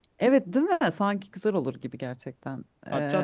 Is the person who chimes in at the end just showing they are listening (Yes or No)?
No